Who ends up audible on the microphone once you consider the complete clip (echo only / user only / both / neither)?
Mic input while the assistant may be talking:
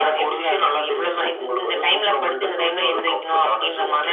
echo only